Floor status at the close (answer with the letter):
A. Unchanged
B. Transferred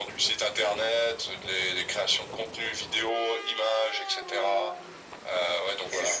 A